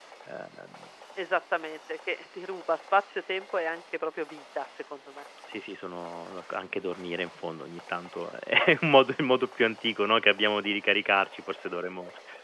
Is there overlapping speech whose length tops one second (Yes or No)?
No